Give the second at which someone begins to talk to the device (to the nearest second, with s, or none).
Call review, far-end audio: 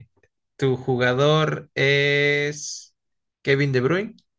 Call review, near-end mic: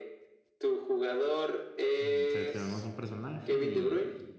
2 s